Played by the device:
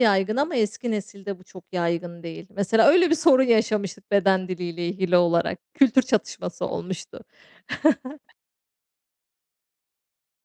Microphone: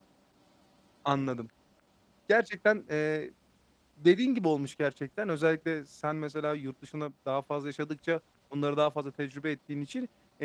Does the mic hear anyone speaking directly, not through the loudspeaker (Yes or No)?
Yes